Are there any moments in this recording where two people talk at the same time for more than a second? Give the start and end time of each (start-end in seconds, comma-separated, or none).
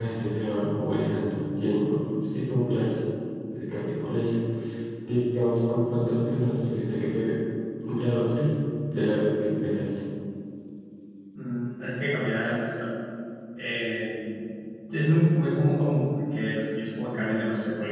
none